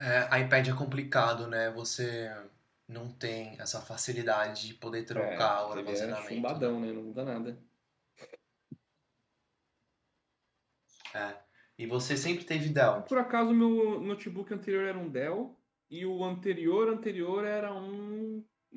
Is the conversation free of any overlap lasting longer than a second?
No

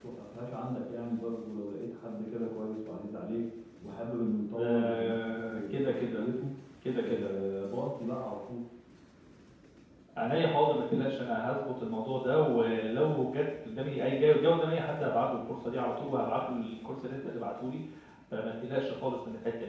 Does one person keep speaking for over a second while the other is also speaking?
Yes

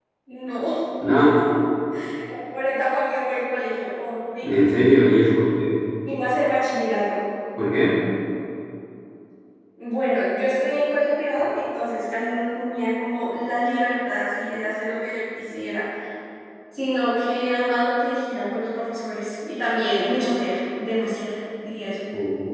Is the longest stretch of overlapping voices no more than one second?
Yes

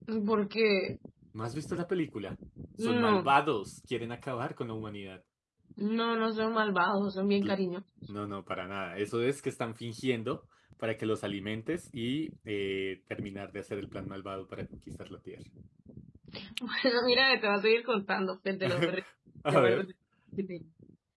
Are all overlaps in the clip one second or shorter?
Yes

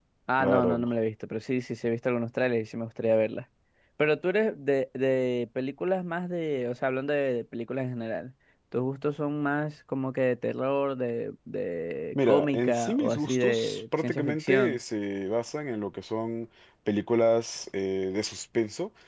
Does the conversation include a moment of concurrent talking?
Yes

